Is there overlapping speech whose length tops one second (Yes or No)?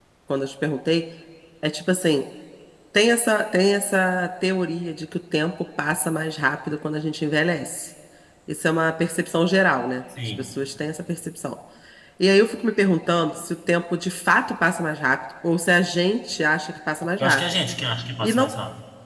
No